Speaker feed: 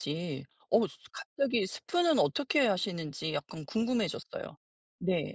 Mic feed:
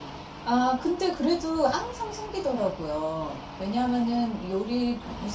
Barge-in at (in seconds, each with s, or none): 0.4 s